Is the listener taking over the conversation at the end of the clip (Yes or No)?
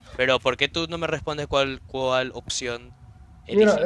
Yes